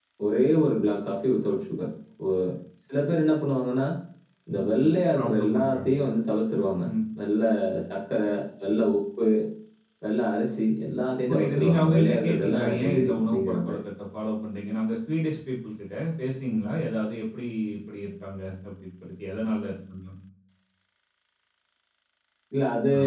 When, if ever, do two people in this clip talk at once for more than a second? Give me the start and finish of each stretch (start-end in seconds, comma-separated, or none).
4.5-5.9, 11.3-13.8